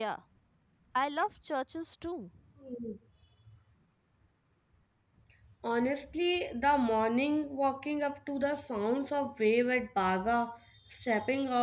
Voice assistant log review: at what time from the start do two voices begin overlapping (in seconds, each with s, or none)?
none